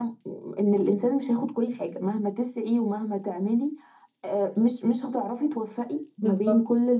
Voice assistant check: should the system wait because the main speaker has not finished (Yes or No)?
Yes